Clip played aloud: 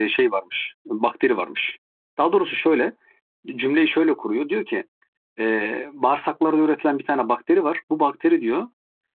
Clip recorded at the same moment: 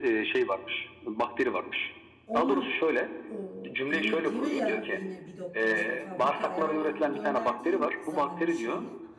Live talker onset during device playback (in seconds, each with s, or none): 2.2 s